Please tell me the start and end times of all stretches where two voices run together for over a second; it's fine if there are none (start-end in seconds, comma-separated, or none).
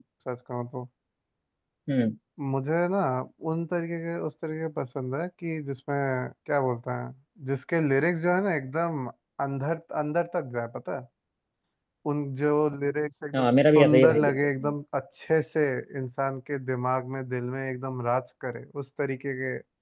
13.3-14.7